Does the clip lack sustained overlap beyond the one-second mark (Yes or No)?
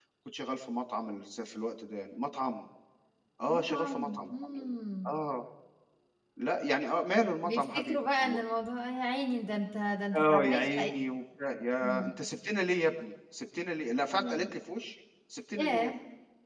No